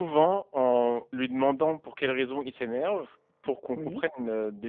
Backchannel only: Yes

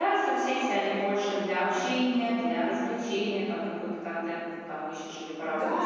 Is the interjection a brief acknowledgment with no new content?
No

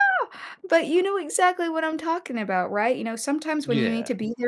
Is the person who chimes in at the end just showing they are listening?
Yes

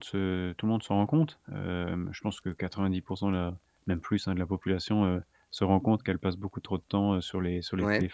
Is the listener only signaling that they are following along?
Yes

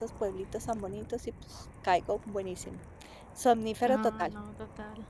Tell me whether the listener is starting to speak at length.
Yes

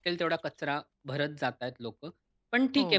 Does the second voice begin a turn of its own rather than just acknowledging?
No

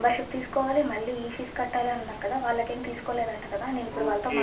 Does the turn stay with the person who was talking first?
No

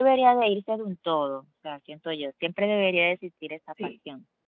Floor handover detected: No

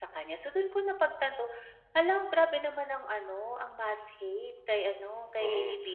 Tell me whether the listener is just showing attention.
No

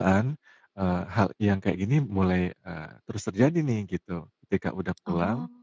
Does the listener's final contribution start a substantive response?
No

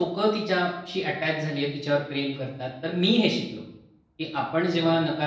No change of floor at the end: Yes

